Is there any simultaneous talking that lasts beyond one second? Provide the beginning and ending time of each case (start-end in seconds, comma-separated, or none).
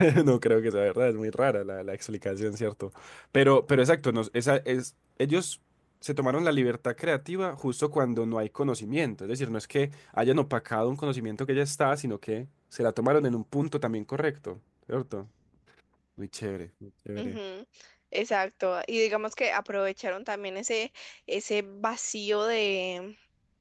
none